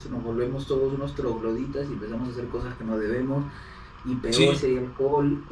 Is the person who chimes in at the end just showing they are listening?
Yes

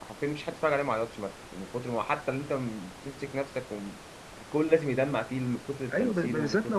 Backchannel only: No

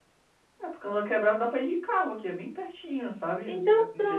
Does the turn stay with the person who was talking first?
No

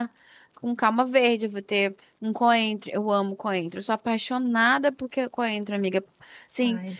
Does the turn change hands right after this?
No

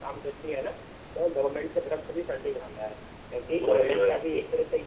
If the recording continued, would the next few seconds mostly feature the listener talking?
No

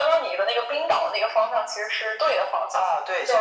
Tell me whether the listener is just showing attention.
No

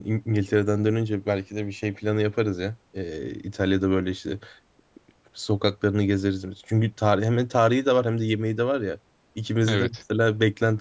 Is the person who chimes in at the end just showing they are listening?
Yes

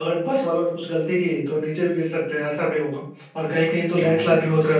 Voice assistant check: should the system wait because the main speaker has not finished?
Yes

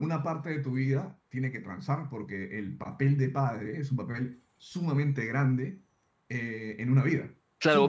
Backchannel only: No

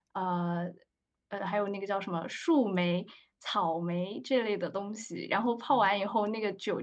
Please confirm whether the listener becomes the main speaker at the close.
No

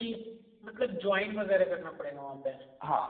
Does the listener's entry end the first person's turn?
Yes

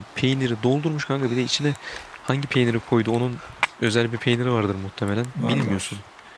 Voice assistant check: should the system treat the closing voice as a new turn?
No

